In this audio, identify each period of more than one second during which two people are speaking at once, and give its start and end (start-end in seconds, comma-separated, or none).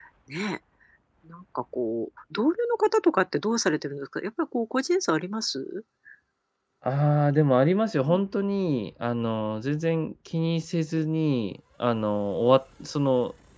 none